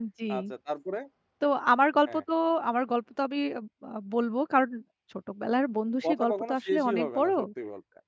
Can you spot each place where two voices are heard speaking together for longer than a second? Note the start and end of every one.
6.0-7.3

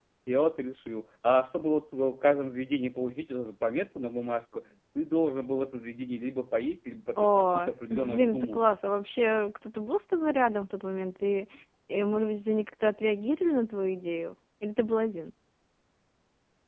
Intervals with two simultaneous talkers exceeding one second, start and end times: 7.2-8.6

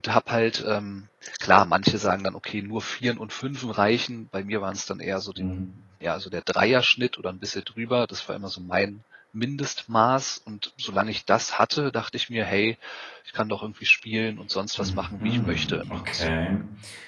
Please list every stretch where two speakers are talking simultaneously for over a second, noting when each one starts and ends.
14.8-16.3

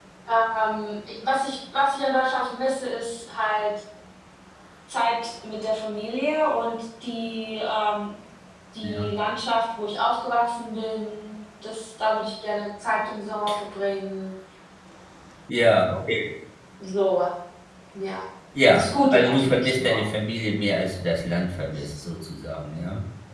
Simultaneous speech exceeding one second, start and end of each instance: 18.7-20.0

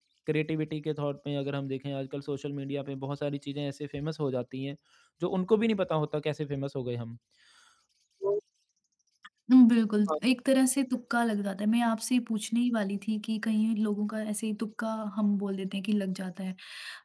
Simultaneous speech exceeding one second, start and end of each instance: none

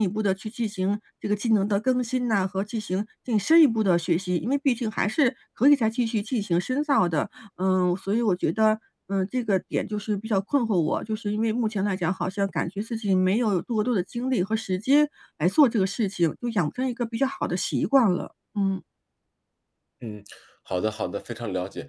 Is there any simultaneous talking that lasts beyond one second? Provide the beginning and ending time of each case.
none

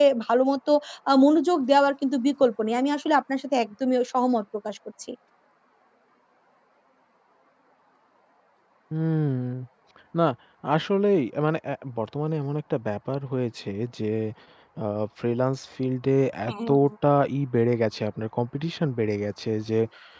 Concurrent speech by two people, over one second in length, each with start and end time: none

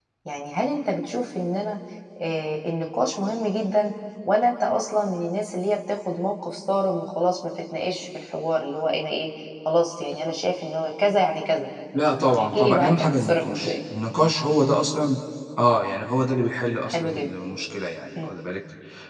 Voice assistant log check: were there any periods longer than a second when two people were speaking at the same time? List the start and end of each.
12.4-13.8

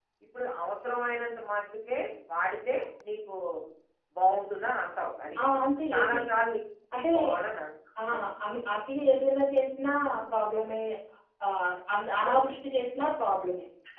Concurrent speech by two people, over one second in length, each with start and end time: none

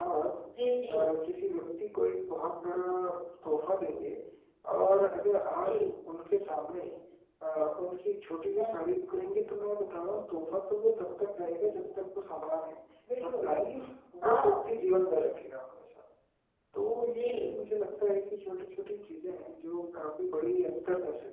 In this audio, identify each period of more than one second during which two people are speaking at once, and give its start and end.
none

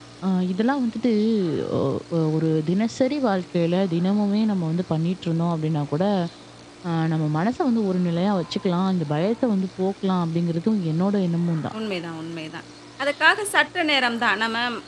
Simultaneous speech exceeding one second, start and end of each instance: none

